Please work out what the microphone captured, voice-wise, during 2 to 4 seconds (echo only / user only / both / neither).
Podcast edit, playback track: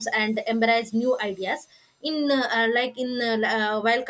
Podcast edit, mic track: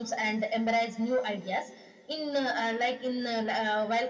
echo only